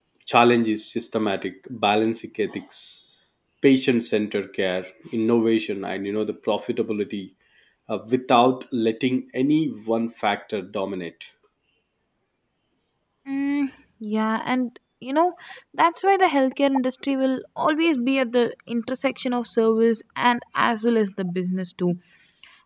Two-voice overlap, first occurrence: none

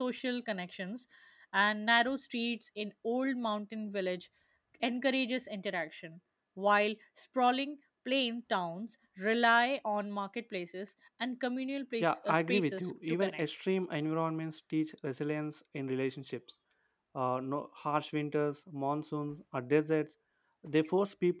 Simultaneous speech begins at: 12 s

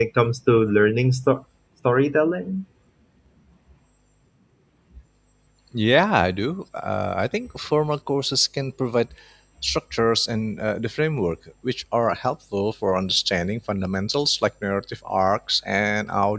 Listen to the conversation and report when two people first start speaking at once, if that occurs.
none

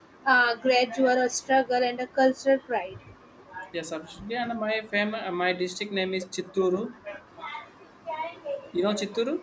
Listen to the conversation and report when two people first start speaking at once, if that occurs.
none

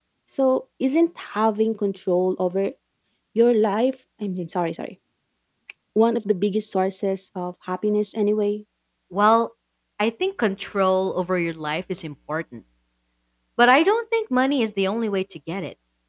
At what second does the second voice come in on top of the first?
none

